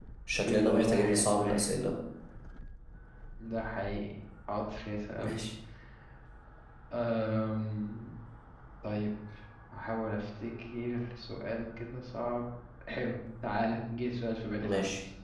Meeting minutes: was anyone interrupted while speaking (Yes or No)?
Yes